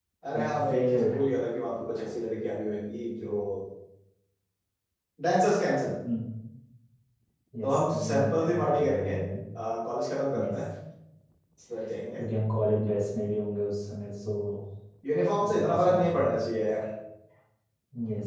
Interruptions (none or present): present